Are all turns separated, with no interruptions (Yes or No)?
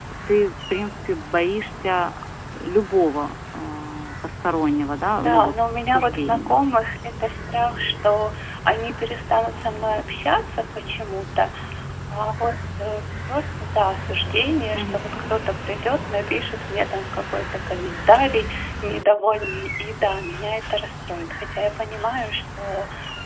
No